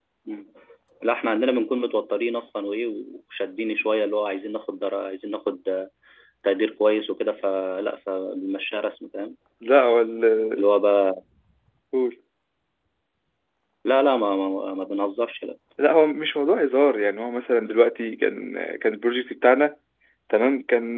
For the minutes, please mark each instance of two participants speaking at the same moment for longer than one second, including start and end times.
none

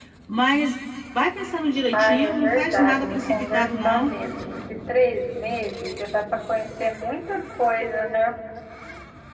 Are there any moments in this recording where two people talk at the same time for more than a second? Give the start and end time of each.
1.9-4.1

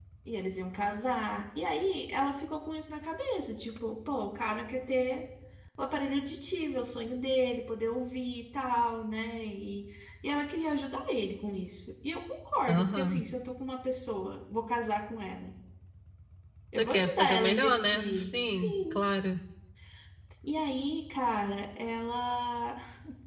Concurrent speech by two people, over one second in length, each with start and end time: 16.8-19.0

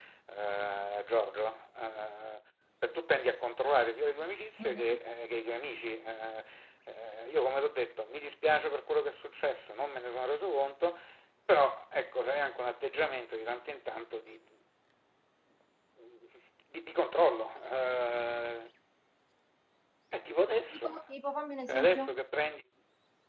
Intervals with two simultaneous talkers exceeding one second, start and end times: none

